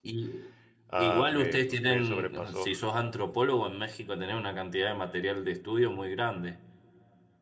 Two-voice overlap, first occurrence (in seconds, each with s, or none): 1.0 s